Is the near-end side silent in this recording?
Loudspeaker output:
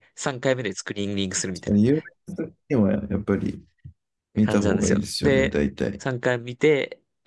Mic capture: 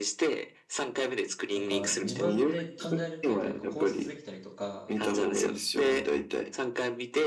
No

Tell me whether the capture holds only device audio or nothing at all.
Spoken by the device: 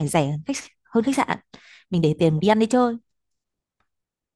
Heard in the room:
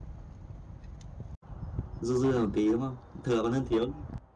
No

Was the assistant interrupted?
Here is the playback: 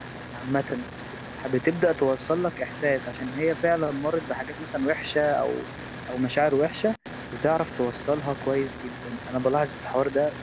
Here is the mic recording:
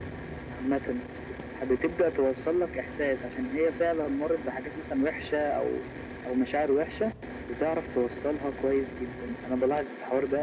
No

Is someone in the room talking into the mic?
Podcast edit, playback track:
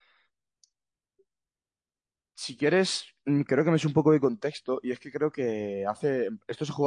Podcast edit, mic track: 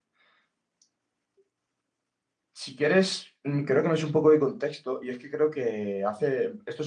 No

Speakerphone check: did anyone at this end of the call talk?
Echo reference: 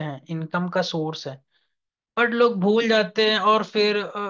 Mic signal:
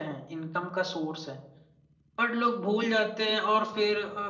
No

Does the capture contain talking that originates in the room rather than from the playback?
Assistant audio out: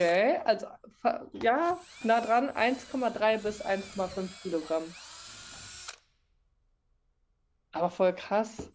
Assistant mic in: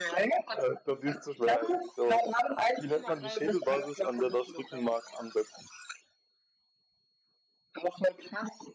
Yes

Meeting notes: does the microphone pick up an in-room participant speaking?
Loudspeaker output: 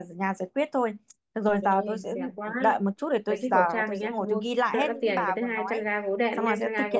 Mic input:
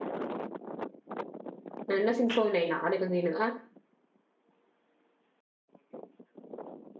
Yes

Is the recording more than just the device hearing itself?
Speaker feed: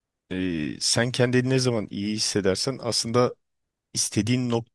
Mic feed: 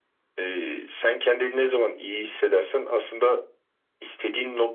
No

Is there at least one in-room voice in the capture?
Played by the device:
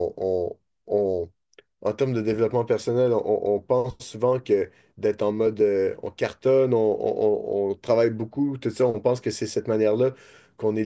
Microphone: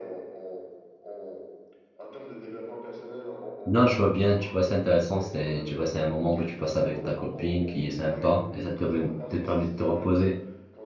Yes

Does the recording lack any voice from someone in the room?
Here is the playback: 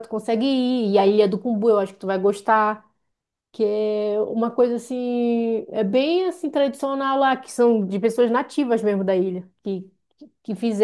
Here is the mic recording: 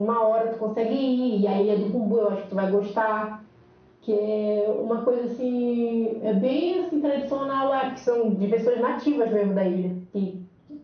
Yes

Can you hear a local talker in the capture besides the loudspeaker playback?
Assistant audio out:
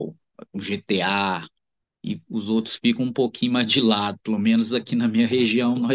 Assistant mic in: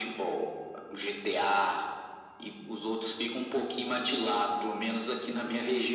No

